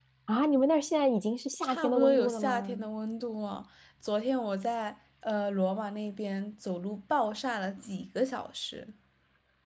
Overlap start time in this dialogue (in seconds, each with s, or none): 1.6 s